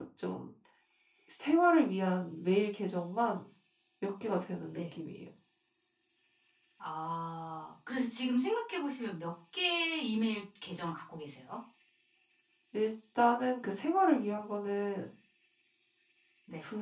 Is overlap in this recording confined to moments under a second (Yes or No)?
Yes